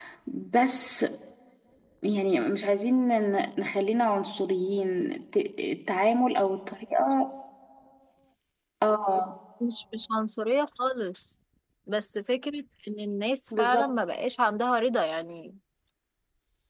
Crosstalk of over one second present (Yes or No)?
No